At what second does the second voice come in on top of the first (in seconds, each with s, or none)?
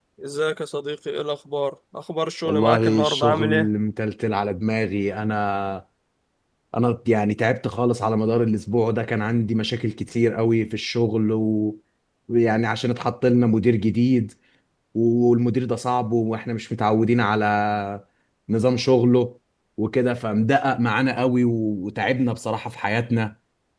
2.5 s